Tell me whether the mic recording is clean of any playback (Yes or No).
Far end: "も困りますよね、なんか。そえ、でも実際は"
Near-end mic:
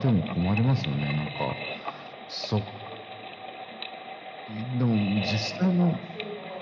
No